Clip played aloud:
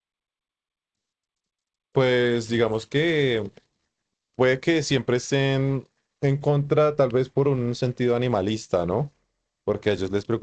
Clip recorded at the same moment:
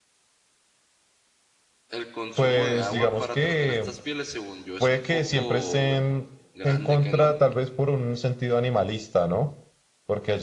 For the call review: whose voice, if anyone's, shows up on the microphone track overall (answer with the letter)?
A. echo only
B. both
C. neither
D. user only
B